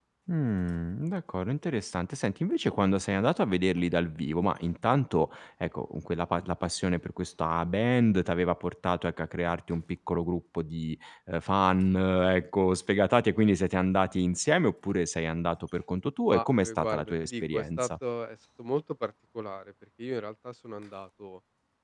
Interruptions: present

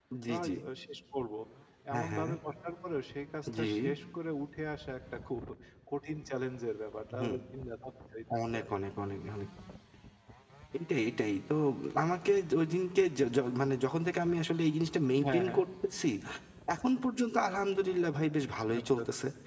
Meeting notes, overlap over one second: none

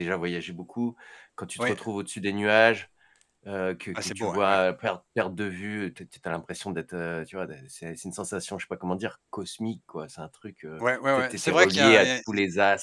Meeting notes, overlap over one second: present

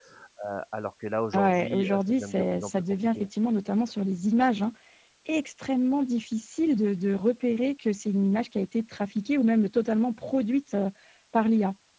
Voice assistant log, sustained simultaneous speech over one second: present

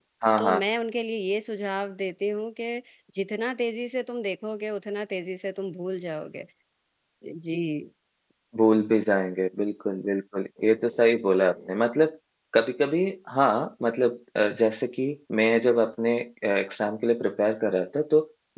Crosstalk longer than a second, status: none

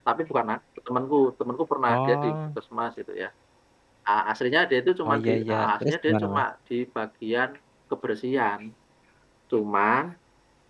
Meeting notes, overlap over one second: present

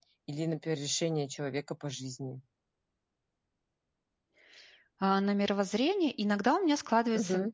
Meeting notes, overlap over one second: none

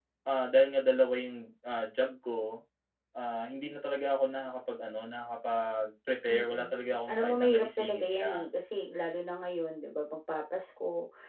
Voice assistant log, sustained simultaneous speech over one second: present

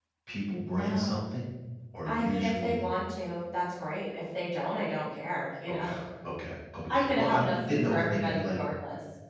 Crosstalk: present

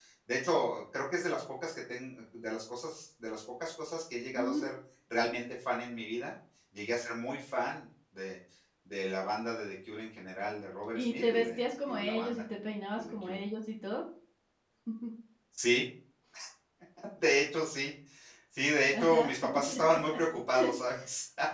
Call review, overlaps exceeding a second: present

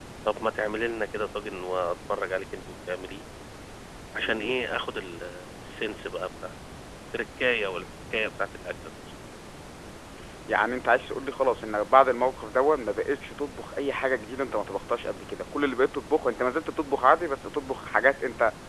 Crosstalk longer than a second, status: none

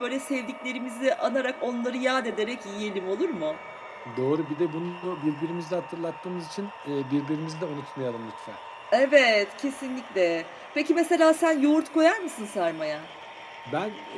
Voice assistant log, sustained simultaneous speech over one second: none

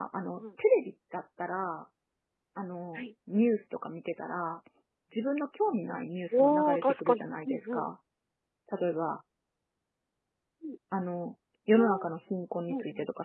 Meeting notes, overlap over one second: present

